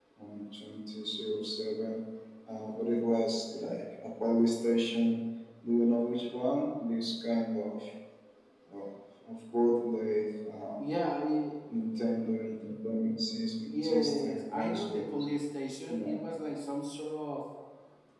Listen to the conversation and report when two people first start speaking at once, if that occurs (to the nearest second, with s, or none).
14 s